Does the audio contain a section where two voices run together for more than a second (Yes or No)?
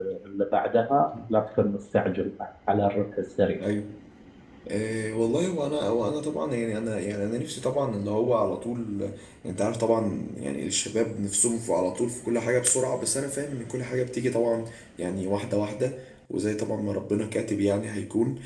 No